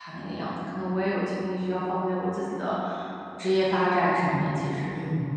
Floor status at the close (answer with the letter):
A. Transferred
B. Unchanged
A